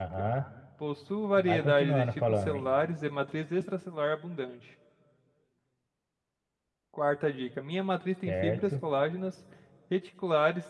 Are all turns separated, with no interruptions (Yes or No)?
No